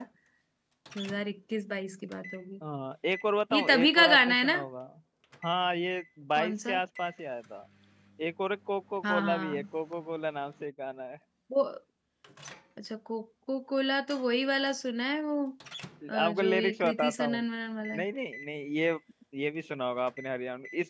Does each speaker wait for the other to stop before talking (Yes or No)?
No